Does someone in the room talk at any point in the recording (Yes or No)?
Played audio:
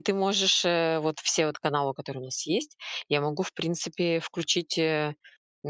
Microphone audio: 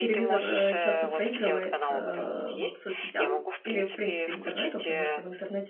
Yes